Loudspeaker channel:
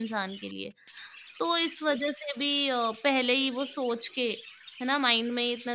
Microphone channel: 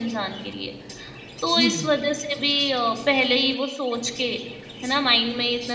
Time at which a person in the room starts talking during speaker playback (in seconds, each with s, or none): 1.6 s